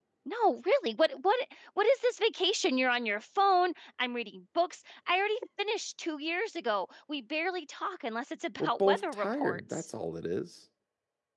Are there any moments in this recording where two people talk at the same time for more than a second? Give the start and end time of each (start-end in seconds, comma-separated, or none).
8.6-9.9